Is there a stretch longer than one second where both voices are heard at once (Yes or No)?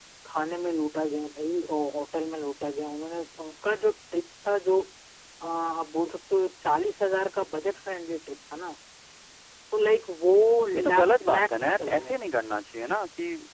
Yes